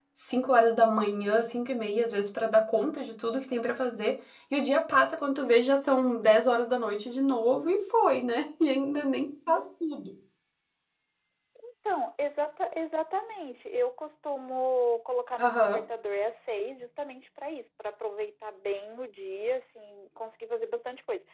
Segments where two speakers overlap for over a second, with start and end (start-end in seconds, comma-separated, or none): none